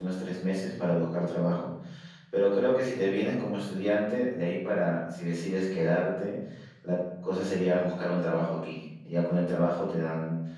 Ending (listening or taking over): listening